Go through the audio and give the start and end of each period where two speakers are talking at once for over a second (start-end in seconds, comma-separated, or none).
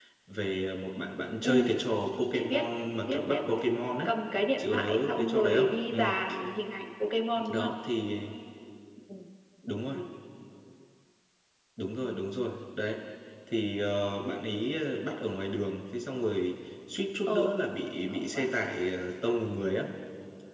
4.6-6.0